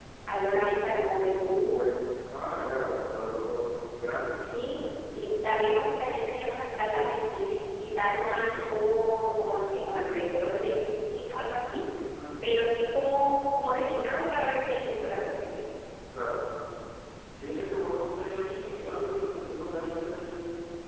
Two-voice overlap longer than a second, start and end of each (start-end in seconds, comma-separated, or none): none